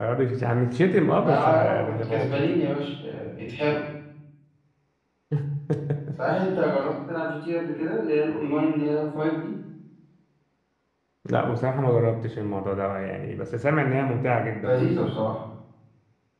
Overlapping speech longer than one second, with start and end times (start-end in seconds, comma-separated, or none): 1.2-2.5